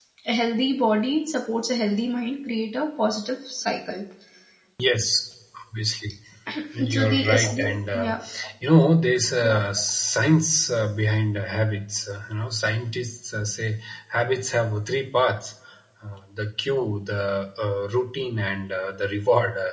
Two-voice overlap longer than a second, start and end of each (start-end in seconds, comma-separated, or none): 6.9-8.2